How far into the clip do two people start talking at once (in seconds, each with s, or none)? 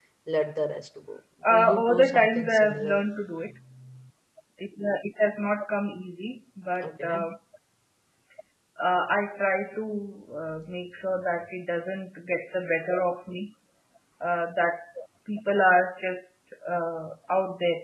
1.5 s